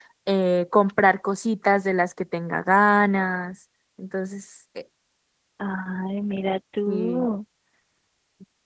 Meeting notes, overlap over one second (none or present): none